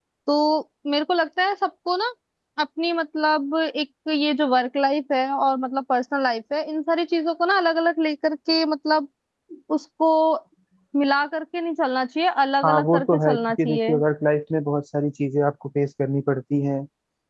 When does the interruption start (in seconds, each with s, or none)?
12.6 s